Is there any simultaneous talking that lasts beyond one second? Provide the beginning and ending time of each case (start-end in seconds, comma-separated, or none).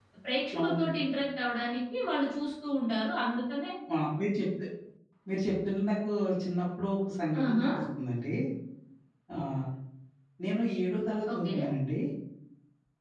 none